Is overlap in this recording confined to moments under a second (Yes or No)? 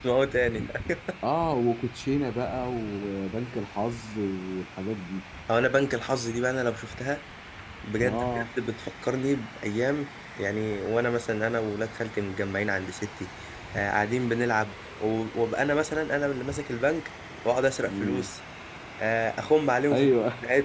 Yes